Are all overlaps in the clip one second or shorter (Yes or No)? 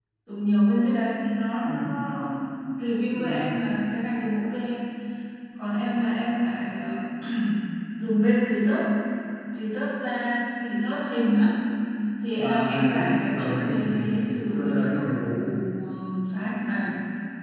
No